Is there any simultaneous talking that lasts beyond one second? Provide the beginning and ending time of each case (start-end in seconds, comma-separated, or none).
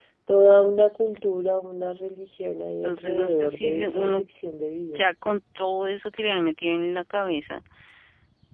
2.8-4.2